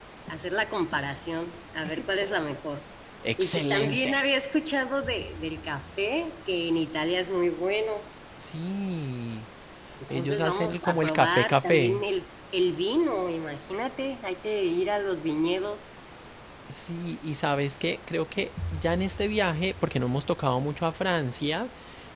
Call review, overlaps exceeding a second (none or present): present